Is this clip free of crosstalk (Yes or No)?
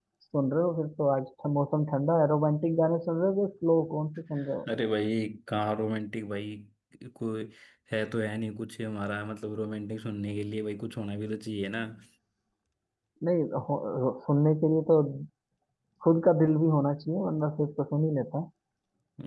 Yes